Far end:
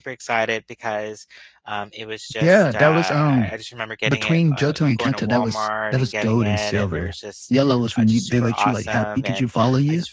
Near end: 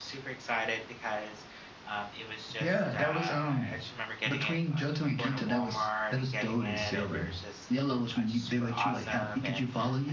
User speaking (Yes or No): No